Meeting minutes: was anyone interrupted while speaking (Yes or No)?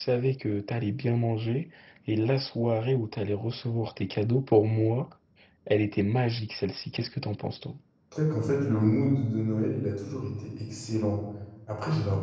No